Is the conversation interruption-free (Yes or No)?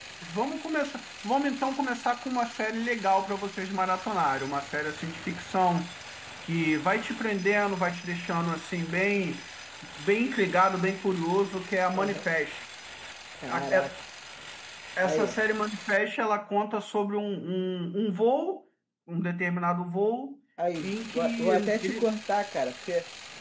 No